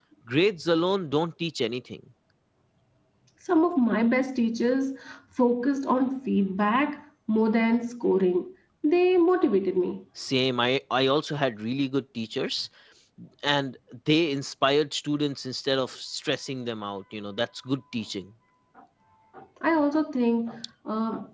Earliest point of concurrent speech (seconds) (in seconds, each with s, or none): none